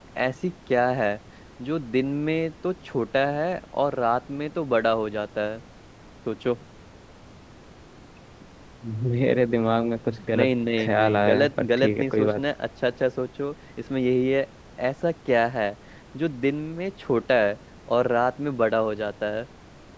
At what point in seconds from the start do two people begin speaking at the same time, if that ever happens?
10.3 s

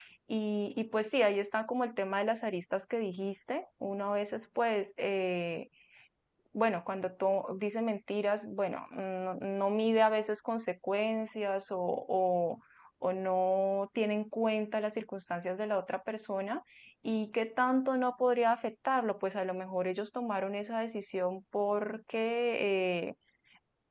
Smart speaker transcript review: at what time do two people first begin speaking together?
none

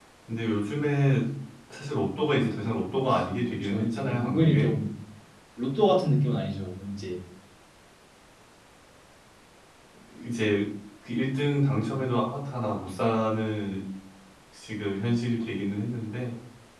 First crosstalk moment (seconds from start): 3.5 s

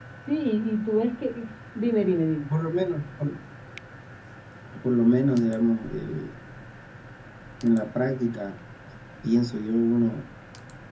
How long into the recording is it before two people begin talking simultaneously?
none

